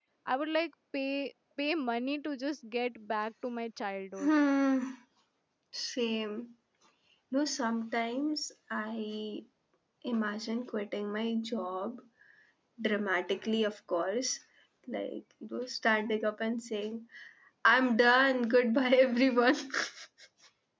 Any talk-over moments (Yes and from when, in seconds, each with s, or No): No